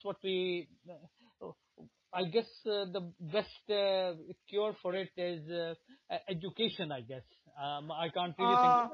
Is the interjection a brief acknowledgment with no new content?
No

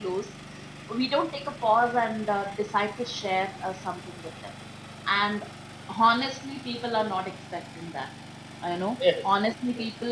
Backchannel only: Yes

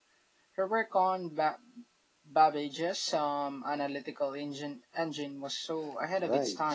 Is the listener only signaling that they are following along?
No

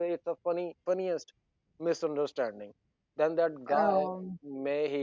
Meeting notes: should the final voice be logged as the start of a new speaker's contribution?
No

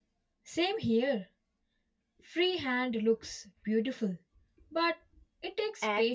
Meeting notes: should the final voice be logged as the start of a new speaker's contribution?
Yes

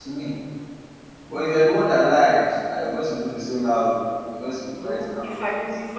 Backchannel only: No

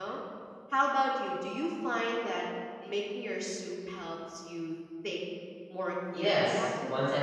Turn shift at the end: Yes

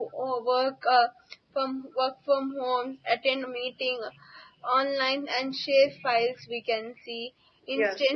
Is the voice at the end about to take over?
No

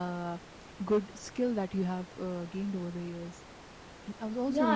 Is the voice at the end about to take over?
Yes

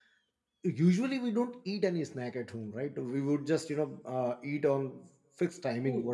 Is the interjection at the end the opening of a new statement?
No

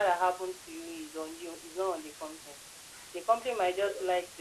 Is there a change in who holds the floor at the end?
No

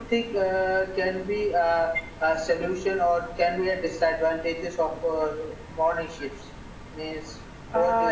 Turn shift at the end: Yes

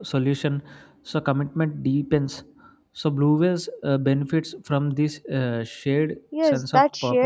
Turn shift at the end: Yes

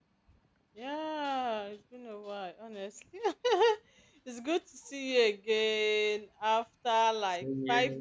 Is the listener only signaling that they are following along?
Yes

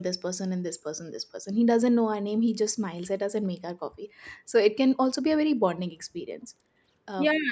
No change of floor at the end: No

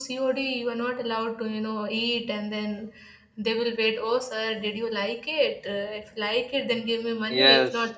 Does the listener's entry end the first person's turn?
Yes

